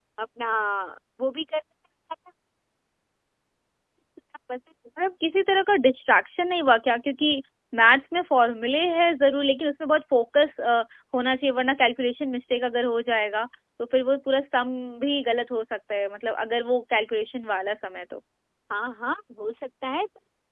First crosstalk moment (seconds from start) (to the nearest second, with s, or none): none